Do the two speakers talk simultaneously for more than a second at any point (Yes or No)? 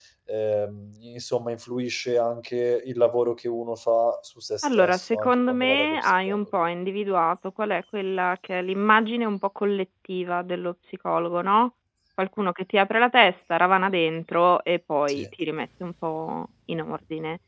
Yes